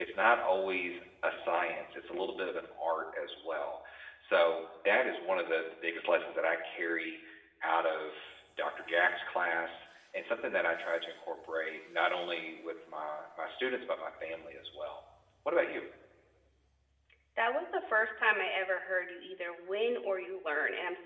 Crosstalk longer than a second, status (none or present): none